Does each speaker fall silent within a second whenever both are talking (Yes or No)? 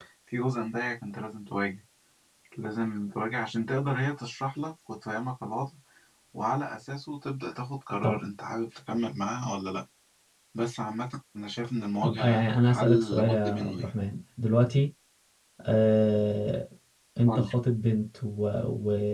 No